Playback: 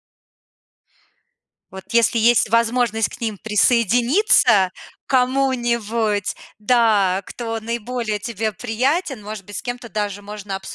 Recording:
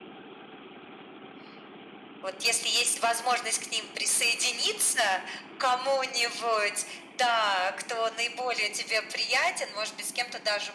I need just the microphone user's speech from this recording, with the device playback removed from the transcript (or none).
none